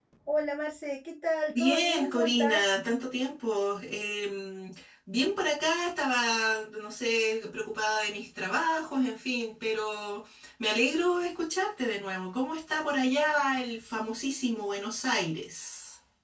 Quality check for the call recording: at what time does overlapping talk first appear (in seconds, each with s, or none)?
1.5 s